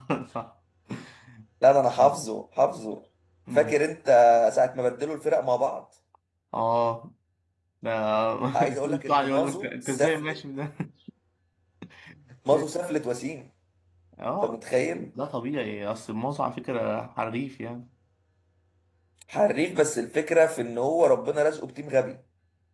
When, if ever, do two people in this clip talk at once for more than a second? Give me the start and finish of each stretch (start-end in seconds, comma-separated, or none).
8.8-10.4